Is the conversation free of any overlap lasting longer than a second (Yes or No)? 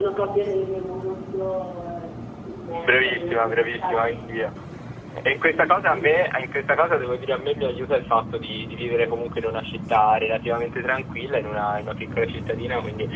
No